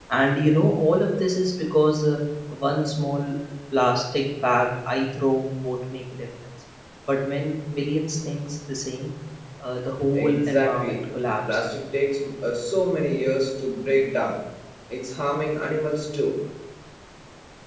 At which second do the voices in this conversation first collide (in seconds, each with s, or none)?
10.1 s